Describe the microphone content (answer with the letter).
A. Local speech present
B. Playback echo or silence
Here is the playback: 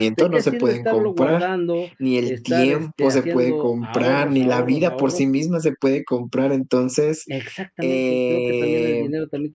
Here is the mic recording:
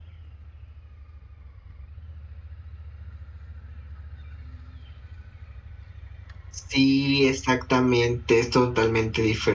A